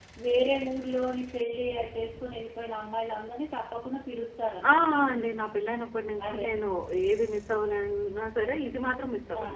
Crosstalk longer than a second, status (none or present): none